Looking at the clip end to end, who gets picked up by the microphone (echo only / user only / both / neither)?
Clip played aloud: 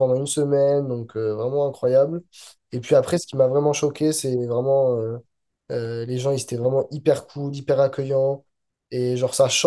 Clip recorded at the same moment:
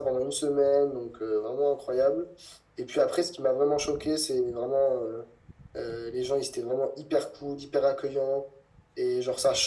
echo only